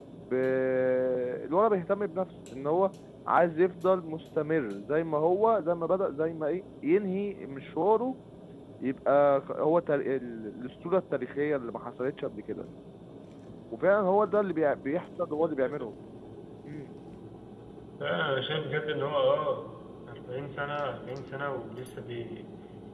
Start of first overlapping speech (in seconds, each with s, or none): none